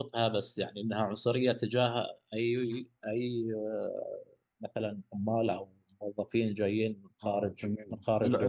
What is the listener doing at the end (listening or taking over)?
taking over